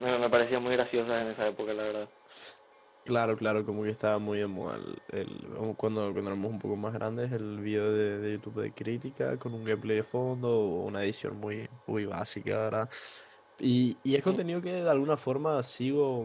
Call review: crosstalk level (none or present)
none